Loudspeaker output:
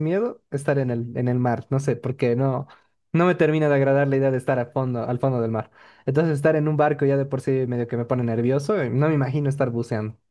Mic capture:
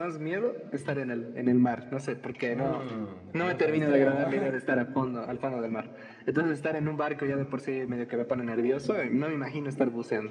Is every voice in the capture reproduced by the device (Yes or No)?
No